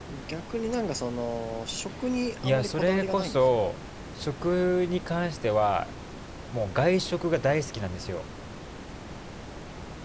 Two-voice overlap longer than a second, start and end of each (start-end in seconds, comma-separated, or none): 2.4-3.6